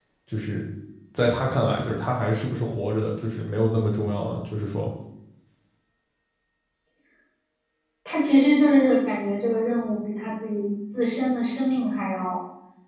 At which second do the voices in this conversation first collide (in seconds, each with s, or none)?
none